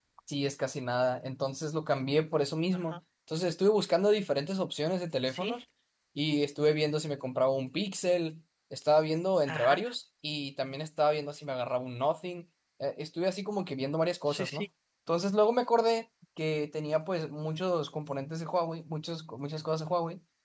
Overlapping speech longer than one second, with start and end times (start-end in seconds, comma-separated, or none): none